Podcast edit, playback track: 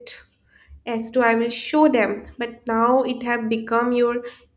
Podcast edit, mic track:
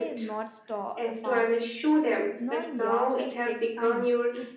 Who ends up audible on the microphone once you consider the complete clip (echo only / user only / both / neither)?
both